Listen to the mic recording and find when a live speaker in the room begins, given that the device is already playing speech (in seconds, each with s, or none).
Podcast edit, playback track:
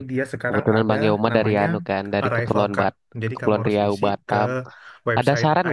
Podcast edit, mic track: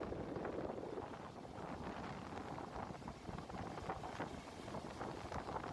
none